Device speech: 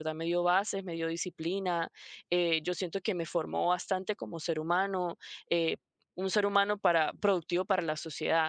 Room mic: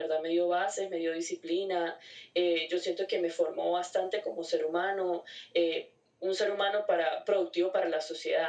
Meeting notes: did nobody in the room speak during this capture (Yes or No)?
Yes